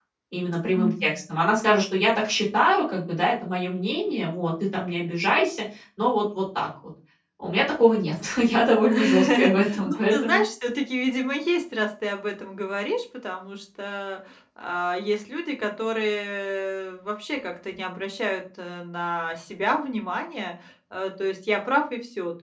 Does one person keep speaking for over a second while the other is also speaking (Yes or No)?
Yes